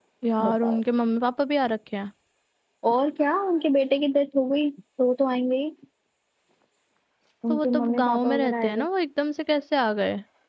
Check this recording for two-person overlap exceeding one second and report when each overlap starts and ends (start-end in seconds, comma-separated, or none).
7.5-8.8